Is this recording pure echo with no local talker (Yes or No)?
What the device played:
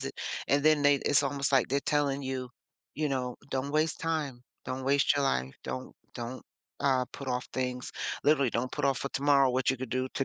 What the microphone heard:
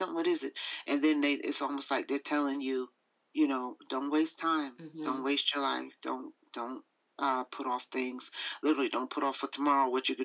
No